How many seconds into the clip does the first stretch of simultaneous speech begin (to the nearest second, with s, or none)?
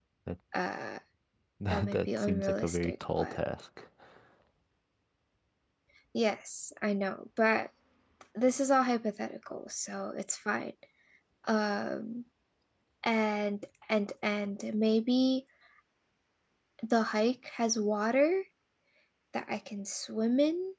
2 s